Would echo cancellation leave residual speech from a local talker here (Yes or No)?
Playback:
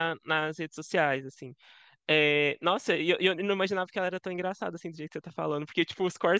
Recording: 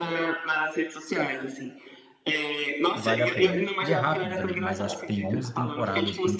Yes